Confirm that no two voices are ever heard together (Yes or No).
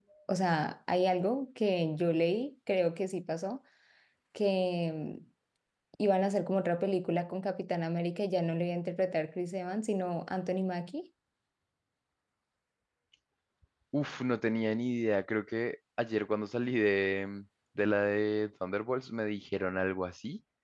Yes